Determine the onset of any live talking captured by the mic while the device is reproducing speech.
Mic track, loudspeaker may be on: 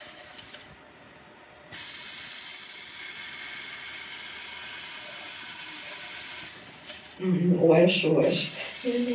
7 s

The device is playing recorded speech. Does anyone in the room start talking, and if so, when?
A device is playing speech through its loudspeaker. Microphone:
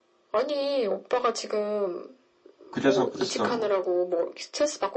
3 s

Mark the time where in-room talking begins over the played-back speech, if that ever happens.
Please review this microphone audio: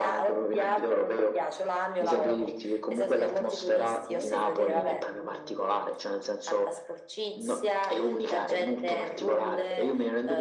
4 s

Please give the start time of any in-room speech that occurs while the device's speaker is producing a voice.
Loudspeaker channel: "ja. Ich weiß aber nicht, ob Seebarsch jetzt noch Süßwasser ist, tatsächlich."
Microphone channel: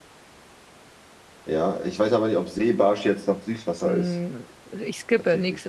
4 s

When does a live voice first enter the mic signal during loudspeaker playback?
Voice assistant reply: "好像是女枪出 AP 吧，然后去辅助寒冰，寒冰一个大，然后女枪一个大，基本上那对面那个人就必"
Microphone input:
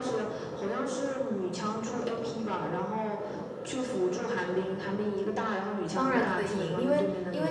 6 s

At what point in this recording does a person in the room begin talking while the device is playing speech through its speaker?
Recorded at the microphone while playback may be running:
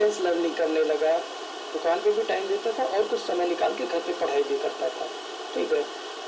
none

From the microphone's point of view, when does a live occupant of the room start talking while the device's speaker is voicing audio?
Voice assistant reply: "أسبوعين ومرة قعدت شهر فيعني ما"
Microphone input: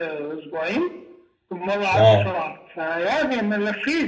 2 s

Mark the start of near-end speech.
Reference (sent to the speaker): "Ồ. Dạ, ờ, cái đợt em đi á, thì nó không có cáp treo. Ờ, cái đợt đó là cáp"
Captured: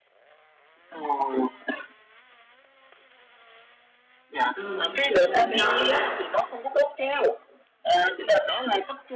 5 s

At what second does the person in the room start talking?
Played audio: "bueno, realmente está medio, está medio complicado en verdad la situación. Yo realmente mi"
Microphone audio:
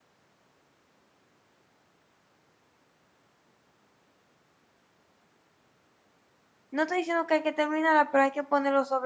7 s

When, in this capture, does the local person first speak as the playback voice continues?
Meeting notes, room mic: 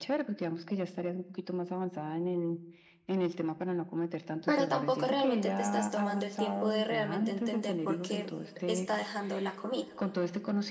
4 s

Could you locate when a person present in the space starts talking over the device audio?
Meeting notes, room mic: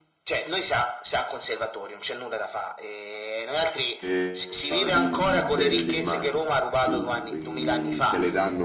4 s

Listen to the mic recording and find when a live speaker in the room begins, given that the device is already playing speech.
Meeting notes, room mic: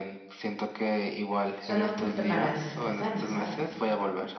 2 s

